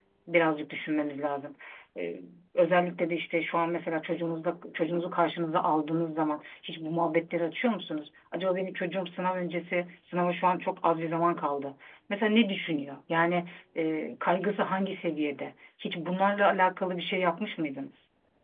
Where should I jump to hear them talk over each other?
none

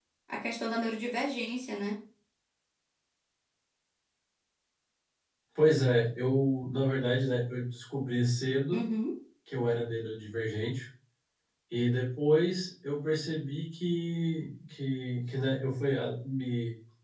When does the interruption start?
none

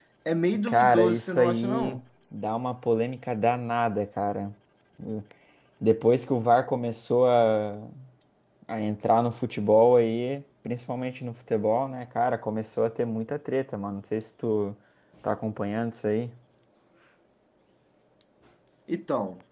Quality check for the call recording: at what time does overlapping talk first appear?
1 s

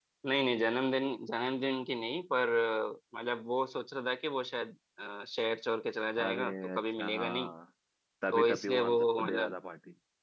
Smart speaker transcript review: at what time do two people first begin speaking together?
6 s

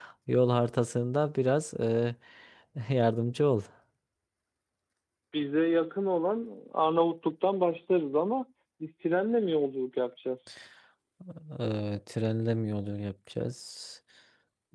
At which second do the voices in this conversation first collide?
none

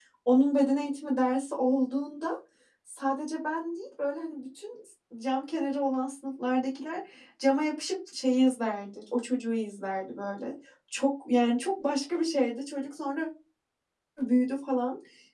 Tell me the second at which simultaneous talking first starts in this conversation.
none

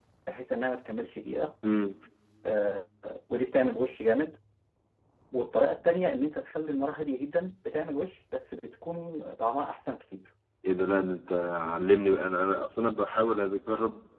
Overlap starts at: none

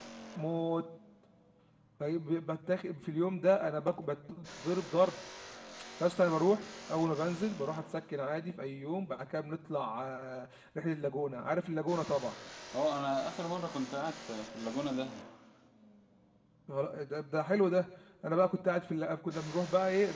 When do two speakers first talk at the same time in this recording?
none

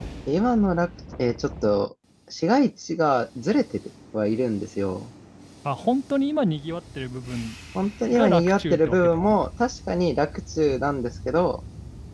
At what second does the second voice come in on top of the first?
8 s

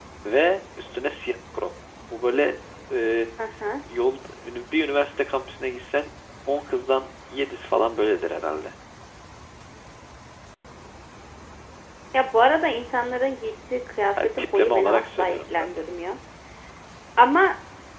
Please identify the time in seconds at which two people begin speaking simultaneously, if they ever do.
14 s

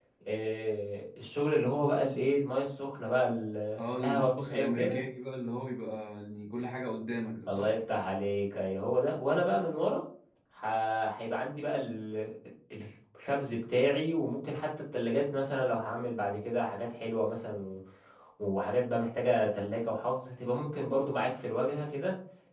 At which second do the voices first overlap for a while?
4 s

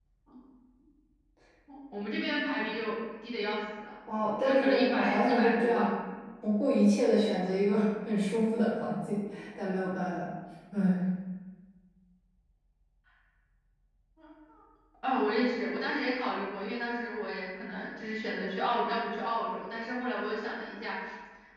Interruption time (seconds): 4 s

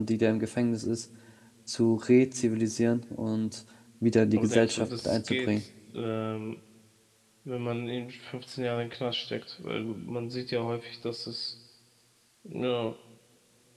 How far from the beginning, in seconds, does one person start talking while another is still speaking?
4 s

